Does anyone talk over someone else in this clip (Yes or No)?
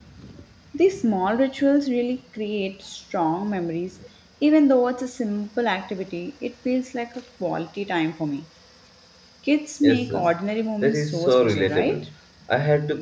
Yes